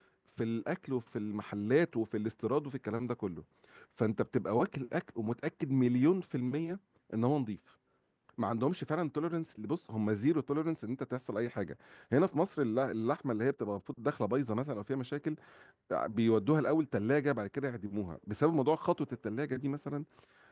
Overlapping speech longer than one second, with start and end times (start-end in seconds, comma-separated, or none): none